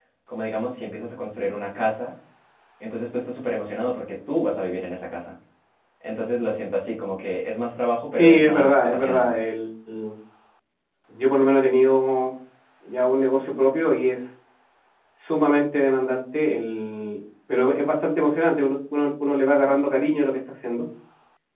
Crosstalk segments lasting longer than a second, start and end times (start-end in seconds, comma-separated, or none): 8.1-9.4